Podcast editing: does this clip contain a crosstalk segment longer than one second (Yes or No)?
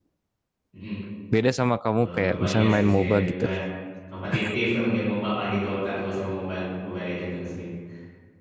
Yes